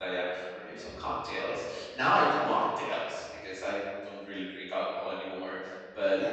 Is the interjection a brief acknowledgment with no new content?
Yes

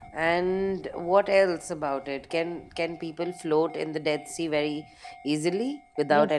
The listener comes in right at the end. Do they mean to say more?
Yes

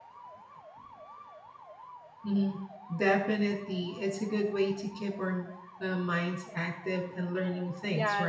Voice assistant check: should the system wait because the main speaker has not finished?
No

